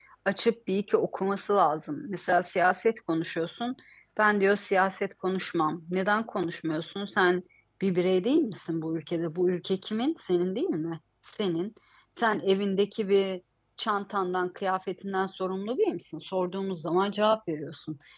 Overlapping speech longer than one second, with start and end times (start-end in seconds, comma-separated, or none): none